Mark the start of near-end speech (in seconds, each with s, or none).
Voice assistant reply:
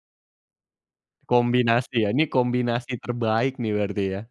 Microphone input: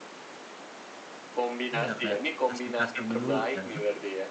1.8 s